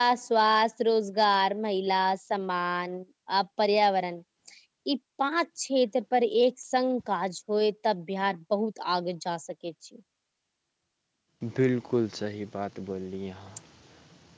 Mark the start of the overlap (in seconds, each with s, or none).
none